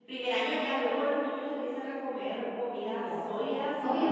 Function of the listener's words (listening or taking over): taking over